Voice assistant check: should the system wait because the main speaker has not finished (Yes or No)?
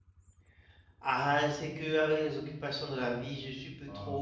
Yes